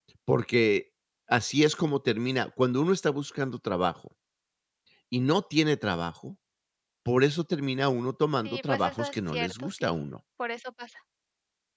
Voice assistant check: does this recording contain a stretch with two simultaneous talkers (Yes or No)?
Yes